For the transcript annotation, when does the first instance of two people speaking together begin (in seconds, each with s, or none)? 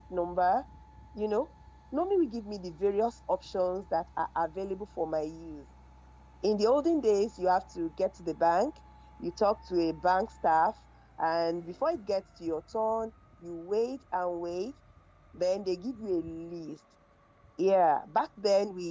none